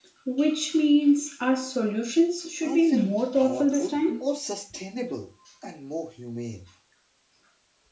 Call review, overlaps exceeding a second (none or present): present